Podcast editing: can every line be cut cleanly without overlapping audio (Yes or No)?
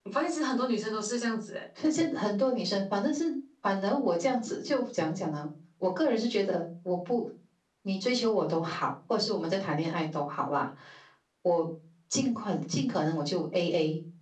Yes